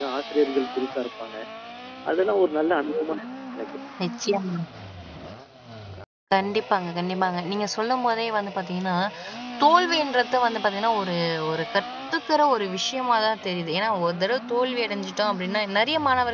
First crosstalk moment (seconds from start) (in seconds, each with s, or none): none